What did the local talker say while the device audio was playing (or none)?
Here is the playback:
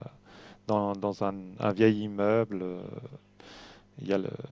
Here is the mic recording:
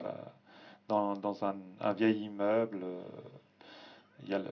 none